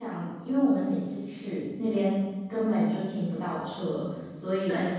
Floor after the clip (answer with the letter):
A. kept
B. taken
A